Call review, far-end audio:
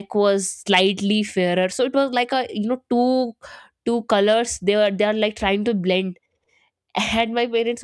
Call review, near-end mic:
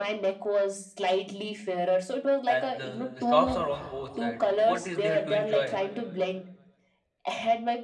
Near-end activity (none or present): present